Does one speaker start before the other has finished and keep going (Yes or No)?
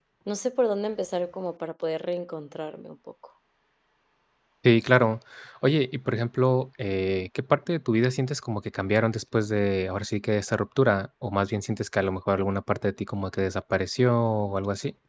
No